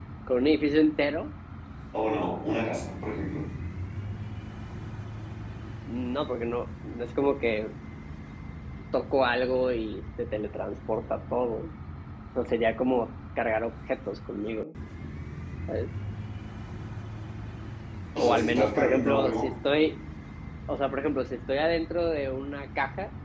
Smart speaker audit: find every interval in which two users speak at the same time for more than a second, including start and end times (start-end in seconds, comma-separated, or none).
18.2-19.5